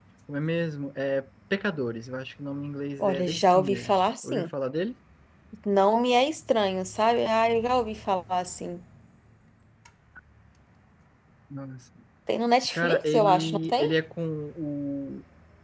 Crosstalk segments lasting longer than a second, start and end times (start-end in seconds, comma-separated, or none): 3.0-4.5, 12.7-13.9